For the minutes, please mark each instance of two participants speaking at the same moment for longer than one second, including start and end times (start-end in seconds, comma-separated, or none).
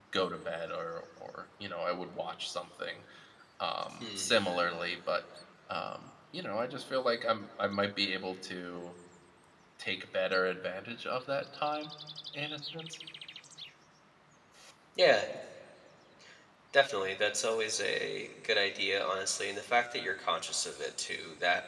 none